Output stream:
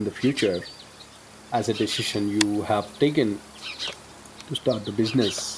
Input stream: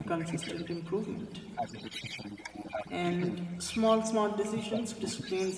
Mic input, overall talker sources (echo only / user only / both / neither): both